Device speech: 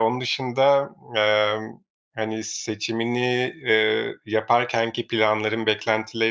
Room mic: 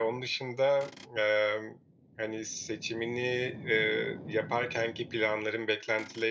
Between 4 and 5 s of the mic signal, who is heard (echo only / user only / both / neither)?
echo only